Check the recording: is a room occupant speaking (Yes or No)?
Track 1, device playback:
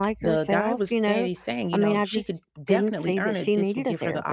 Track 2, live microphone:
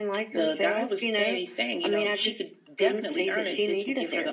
No